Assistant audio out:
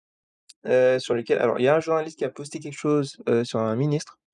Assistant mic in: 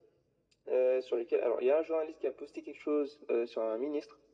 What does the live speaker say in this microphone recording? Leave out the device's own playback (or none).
none